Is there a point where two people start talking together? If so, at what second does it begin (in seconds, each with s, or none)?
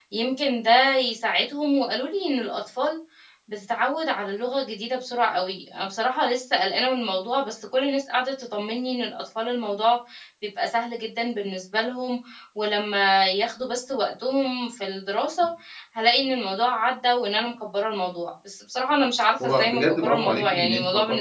19.4 s